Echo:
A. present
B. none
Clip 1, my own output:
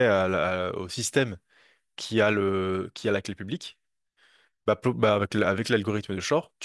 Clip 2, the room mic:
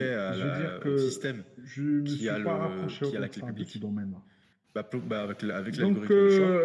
A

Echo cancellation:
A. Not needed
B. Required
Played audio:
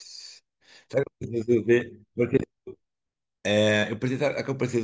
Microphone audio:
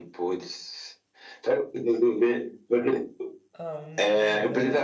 B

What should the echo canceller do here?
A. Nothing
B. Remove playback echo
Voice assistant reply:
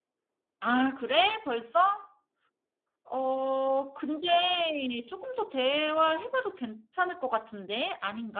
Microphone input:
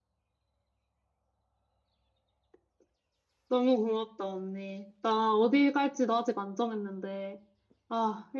A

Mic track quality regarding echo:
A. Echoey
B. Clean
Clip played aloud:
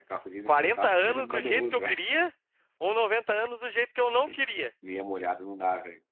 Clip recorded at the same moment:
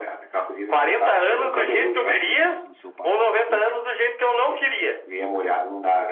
A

